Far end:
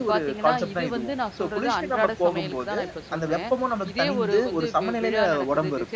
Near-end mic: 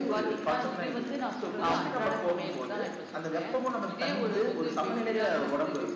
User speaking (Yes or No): Yes